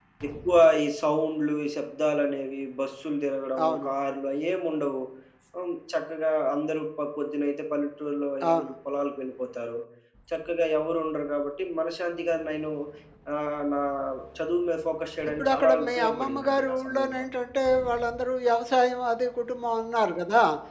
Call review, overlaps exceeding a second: present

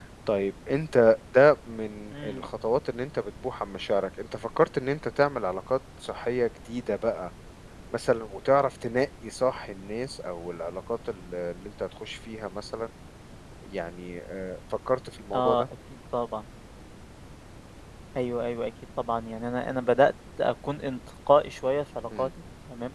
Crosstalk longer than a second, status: none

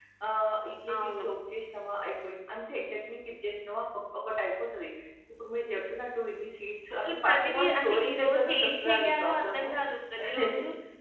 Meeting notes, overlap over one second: present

